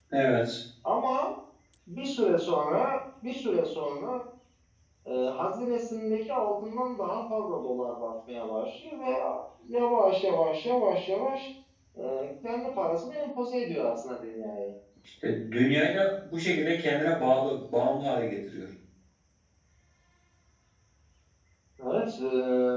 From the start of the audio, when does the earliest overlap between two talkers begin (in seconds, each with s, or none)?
none